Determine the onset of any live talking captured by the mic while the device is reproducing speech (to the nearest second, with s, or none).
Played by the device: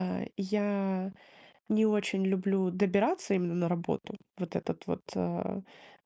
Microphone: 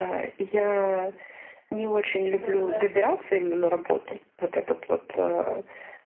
2 s